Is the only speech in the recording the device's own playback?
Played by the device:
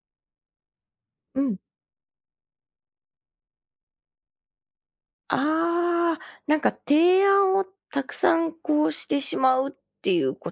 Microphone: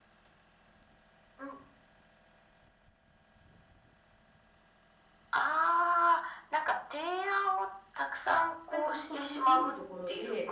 No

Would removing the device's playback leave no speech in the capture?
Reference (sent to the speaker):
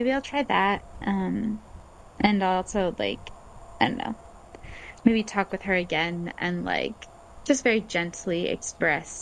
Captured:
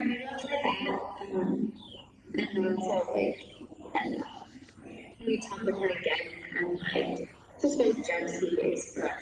Yes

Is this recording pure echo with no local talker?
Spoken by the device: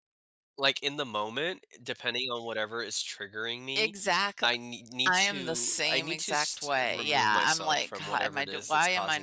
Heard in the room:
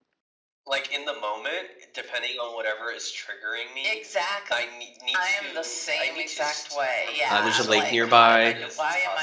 No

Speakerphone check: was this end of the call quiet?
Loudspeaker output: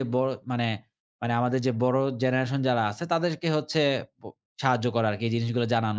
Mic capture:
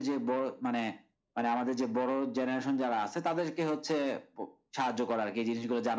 Yes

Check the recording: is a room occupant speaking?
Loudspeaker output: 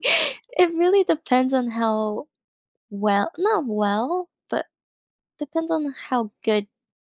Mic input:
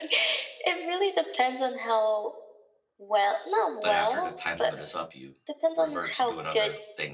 Yes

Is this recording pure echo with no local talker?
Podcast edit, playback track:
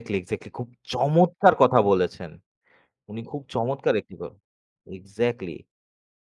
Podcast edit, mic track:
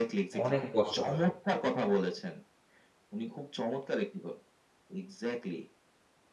No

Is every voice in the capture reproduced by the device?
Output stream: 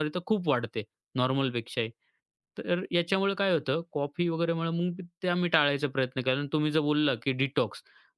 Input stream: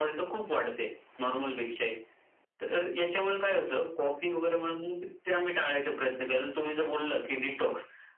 Yes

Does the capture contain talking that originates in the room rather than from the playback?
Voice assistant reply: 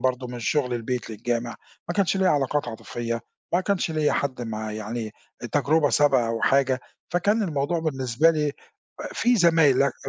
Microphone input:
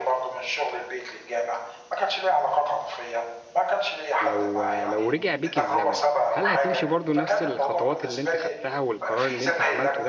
Yes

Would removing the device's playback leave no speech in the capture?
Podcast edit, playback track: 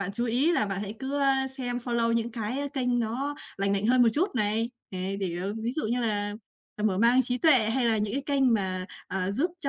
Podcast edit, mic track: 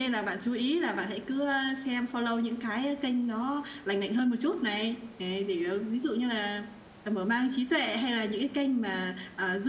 Yes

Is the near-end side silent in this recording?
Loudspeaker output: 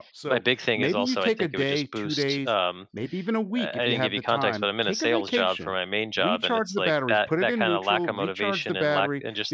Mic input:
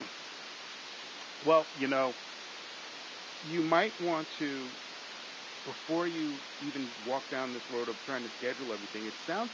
No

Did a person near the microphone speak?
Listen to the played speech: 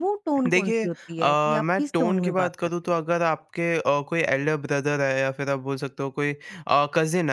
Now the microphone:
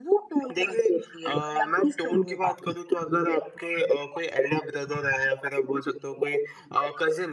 No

